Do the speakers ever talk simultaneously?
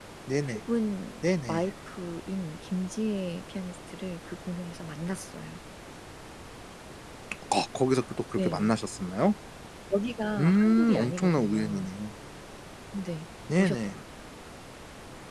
Yes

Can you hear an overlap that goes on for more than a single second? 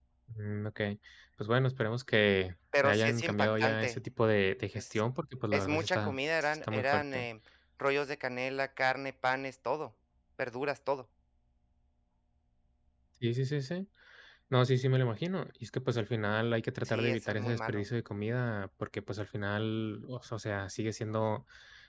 Yes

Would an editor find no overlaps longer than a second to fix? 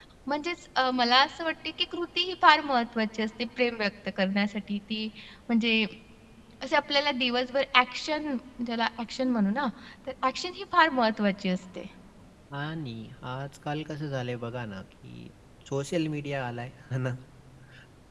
Yes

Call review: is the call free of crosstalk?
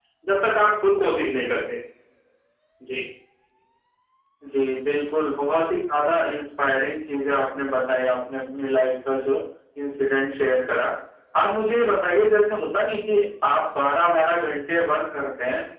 Yes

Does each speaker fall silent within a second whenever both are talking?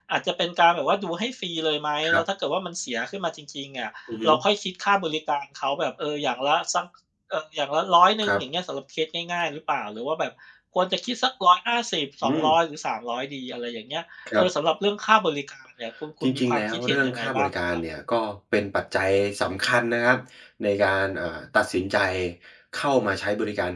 No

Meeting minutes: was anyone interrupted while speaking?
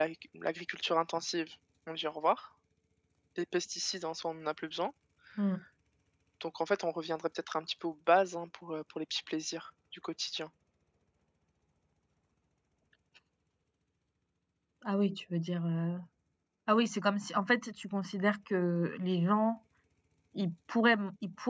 No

